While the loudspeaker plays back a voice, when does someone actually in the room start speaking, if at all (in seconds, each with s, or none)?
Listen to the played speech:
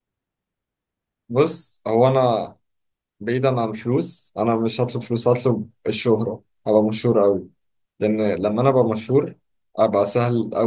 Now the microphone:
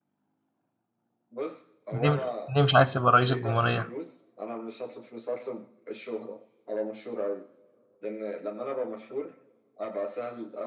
1.9 s